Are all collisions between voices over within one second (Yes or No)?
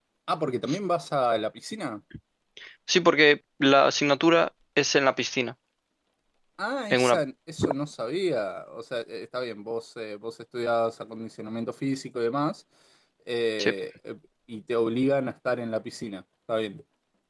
Yes